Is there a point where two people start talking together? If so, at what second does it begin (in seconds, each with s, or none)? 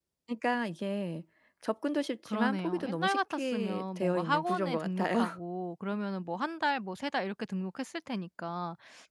2.2 s